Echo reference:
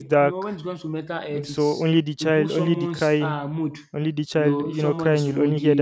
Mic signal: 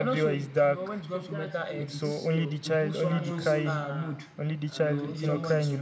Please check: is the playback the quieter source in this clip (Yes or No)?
No